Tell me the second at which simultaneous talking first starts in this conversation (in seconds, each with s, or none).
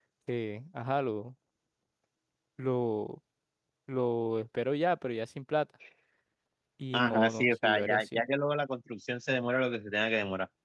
6.9 s